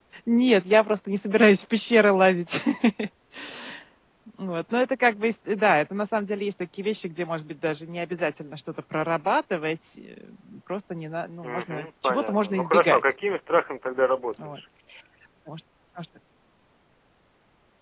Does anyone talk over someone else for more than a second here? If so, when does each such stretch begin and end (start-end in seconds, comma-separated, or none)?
11.4-13.1